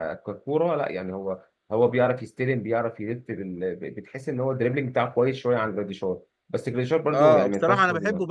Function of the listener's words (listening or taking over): taking over